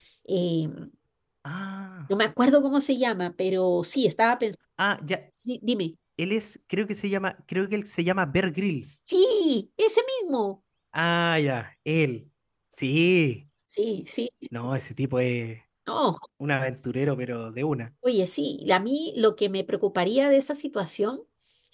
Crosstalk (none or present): none